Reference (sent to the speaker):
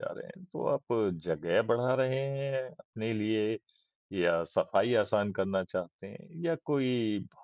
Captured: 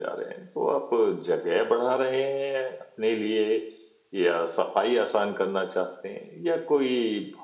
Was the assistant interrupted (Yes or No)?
No